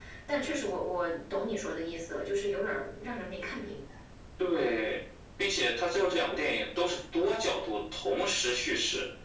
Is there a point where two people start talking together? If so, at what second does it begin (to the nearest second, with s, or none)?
none